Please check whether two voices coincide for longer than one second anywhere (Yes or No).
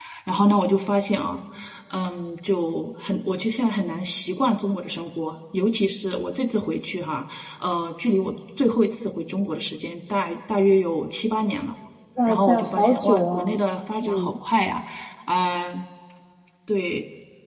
Yes